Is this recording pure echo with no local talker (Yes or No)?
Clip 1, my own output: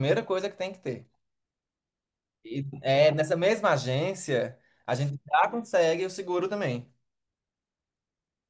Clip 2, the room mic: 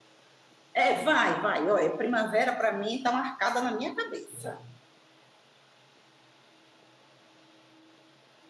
No